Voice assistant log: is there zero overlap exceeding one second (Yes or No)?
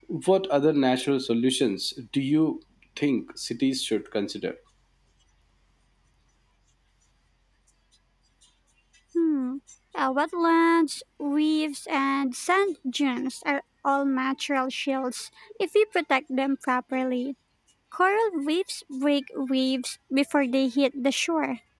Yes